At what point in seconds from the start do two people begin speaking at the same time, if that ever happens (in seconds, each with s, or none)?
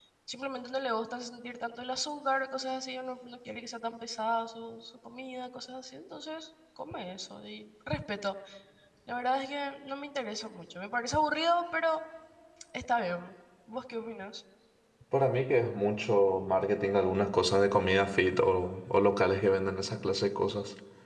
none